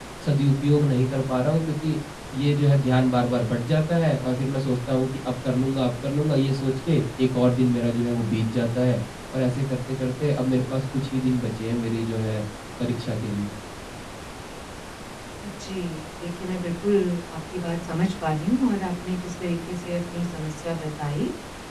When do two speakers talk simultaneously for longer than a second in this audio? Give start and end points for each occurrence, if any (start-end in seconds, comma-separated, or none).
none